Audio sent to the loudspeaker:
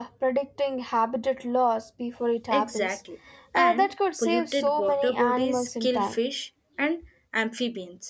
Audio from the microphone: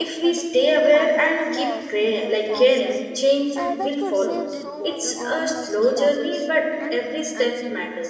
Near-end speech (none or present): present